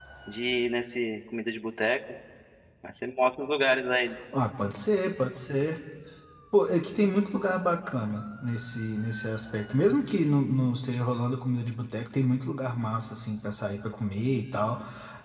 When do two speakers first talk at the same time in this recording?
none

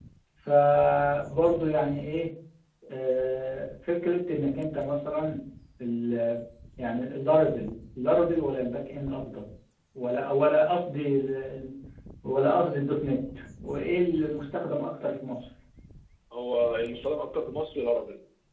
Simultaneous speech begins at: none

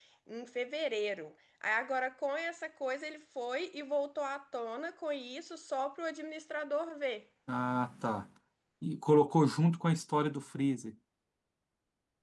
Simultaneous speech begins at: none

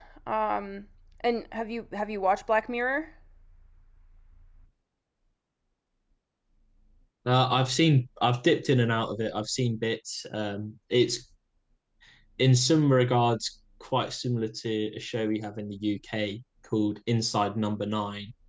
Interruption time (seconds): none

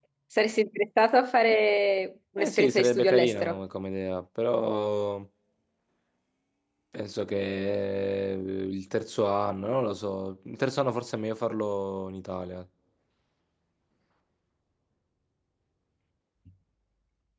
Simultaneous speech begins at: 2.4 s

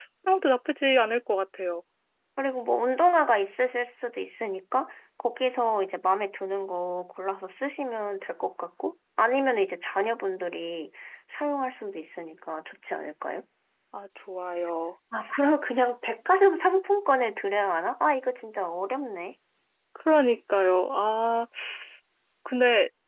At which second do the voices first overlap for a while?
none

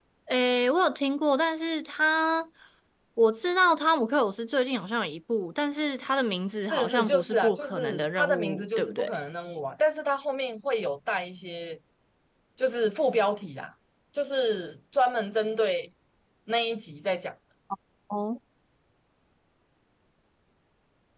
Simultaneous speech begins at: 6.6 s

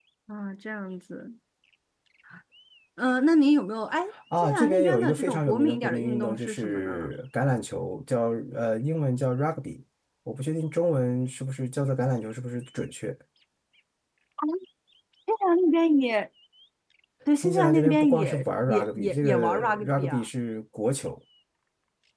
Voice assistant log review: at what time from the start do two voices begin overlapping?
4.4 s

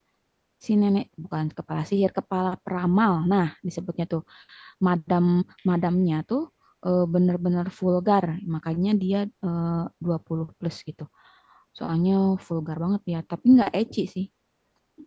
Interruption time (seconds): none

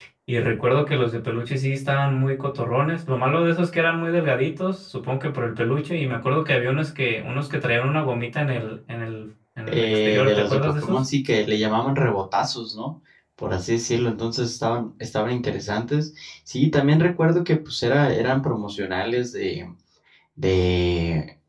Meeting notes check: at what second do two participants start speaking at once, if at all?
9.7 s

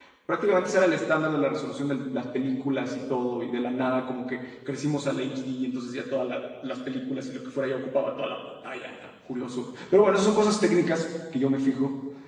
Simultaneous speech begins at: none

